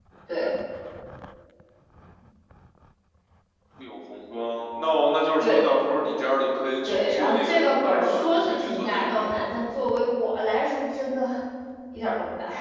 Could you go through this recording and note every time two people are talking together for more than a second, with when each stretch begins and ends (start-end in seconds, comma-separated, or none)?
6.8-9.5